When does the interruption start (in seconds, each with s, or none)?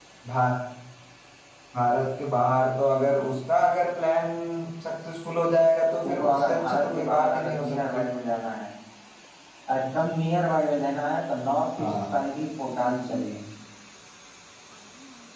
6.1 s